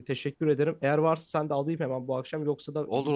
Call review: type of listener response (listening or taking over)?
taking over